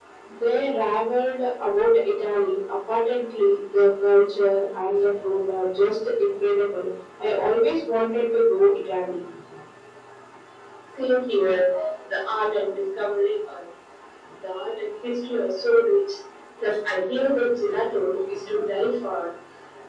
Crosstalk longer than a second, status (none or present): none